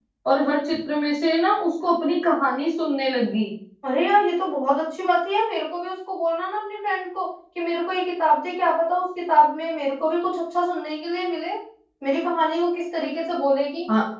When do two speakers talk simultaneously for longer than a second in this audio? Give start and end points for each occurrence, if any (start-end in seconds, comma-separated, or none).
none